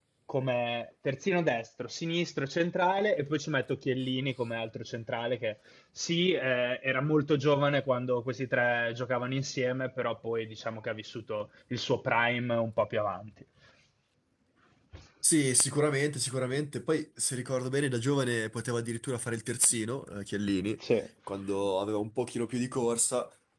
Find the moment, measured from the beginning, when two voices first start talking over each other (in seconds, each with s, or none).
none